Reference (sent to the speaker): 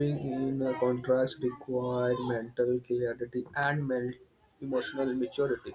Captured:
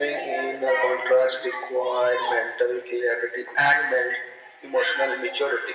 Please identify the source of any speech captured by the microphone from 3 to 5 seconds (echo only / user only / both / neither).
echo only